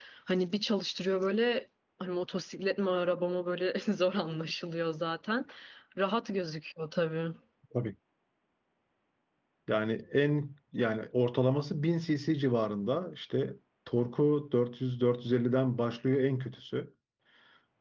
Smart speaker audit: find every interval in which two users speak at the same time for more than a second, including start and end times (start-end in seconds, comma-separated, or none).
none